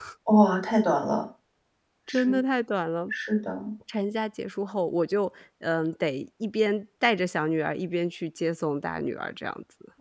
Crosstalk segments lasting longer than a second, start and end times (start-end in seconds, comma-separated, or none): none